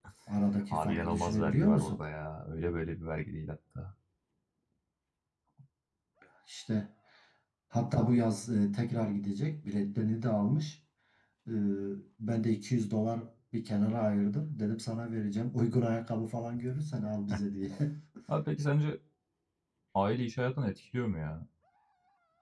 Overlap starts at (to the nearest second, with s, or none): 1 s